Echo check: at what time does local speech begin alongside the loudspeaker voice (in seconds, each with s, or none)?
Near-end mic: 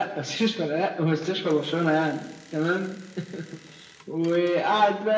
none